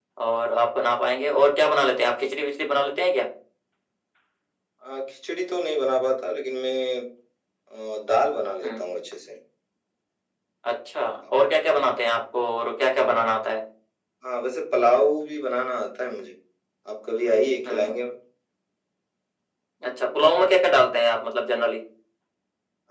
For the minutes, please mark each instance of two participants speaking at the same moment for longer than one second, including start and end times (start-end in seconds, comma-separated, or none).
none